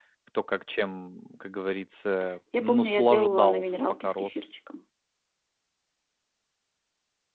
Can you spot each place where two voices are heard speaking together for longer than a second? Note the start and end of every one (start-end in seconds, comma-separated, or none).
2.6-4.5